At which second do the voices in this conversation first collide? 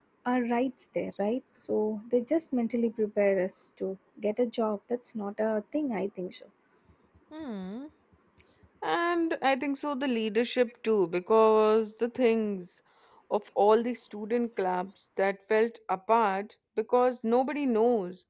none

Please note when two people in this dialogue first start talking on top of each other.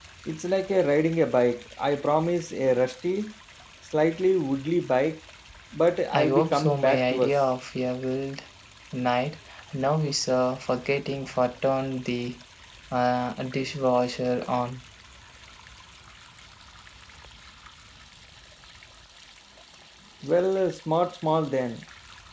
6.1 s

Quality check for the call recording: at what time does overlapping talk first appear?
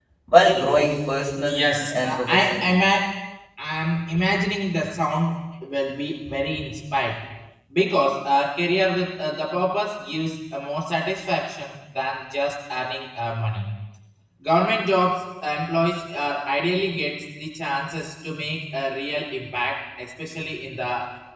1.5 s

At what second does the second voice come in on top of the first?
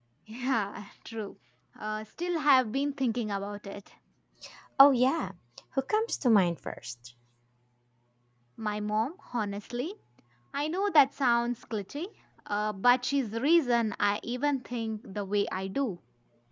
none

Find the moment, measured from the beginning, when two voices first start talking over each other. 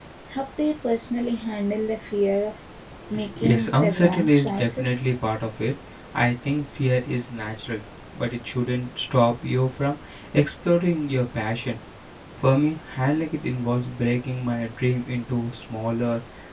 3.4 s

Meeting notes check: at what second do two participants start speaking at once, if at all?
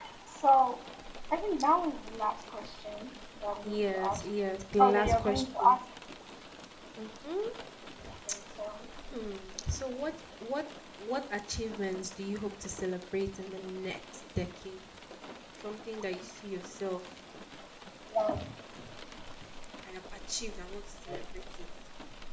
3.6 s

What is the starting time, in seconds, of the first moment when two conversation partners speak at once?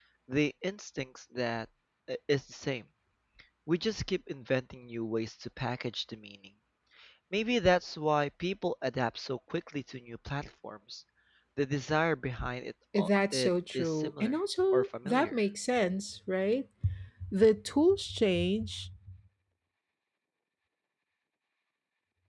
12.9 s

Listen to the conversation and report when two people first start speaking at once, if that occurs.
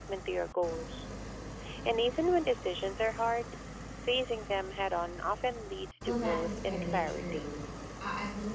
6.0 s

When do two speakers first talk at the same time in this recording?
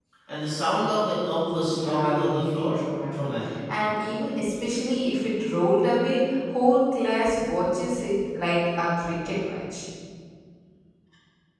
1.5 s

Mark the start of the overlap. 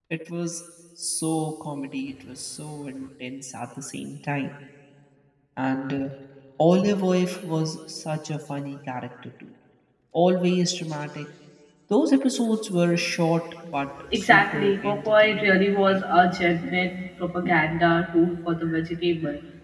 14.0 s

